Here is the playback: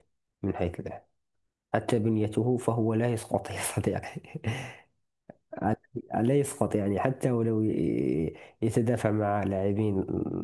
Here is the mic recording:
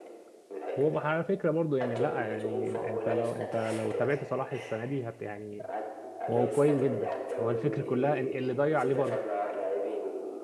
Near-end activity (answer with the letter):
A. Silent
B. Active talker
B